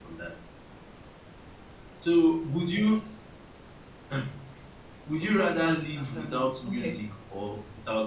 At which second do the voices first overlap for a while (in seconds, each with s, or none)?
5.2 s